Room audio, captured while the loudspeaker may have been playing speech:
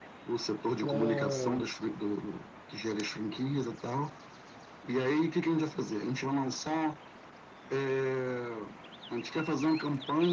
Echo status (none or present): present